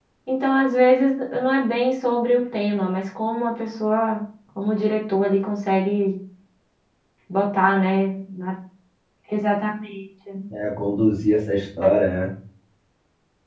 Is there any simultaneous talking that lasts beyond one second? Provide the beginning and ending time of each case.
none

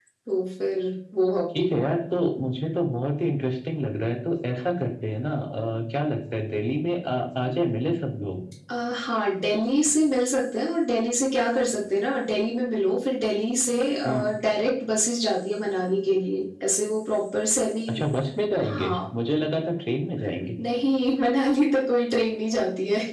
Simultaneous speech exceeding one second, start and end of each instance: none

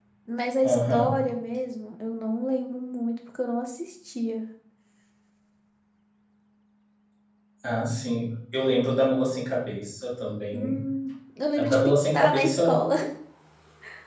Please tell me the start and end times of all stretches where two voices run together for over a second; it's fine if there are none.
11.6-12.8

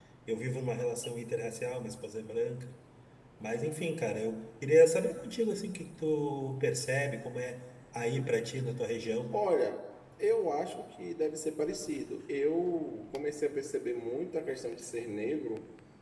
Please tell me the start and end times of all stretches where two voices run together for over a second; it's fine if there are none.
none

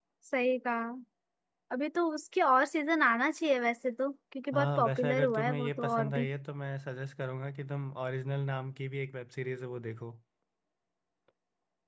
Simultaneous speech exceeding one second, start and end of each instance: 4.5-6.3

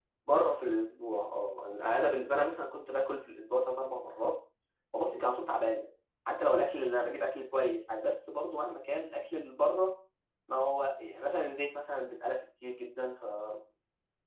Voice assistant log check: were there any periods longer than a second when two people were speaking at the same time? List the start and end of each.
none

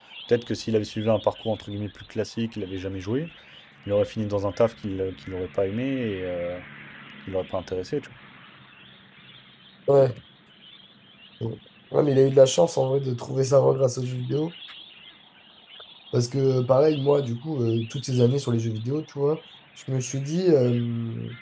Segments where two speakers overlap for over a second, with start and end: none

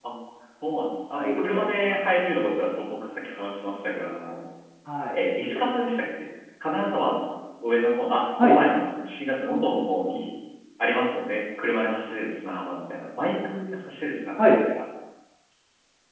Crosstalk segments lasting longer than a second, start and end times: 1.1-2.4

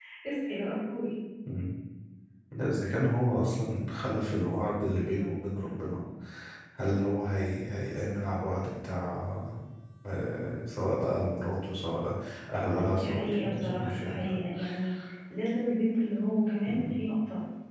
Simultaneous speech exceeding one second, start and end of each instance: 12.8-14.4

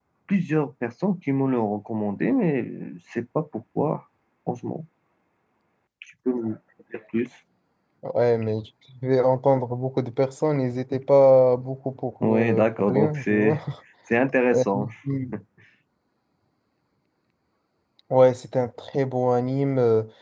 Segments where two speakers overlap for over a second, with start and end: 12.2-13.6

